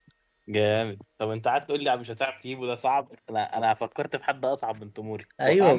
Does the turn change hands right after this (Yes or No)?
Yes